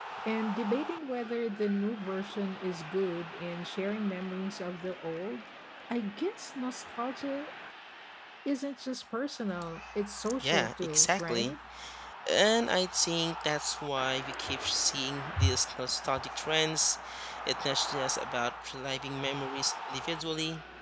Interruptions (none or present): present